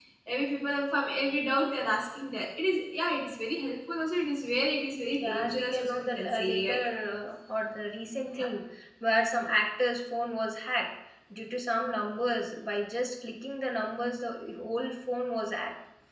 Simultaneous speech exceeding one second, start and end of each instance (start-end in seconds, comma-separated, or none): 5.2-6.8